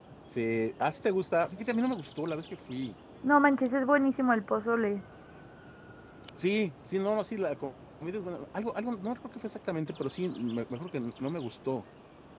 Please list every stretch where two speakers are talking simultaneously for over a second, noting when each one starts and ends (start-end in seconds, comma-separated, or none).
none